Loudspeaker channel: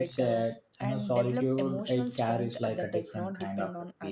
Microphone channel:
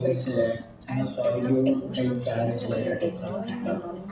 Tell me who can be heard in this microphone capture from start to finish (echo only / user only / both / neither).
both